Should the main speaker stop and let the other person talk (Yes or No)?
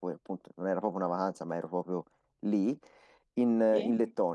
No